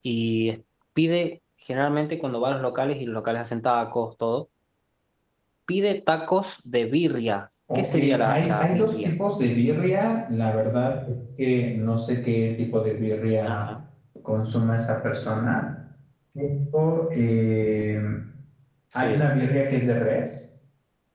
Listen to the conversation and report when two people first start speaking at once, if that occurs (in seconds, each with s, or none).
7.8 s